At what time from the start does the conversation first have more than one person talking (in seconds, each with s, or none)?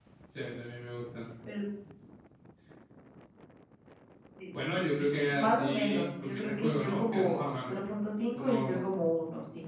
5.2 s